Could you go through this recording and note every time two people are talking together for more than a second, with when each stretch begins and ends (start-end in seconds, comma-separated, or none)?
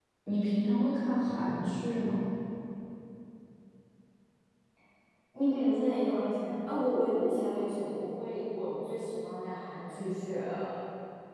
none